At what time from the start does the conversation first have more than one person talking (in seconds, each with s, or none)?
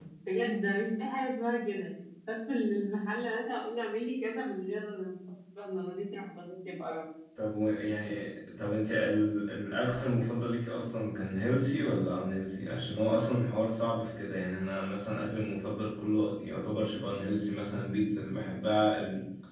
none